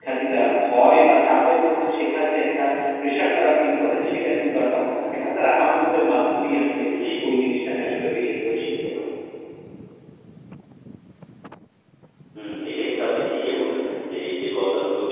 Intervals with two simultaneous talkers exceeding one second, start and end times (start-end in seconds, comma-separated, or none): none